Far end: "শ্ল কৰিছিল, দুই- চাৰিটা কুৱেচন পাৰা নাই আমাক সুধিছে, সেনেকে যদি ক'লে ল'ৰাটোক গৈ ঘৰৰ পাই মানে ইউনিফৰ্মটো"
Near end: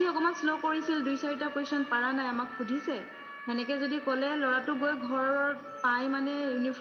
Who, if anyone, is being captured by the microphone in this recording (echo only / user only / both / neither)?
echo only